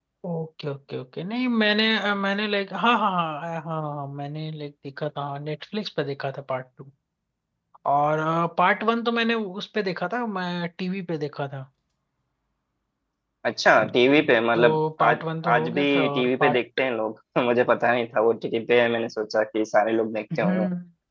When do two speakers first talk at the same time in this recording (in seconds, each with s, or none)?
14.6 s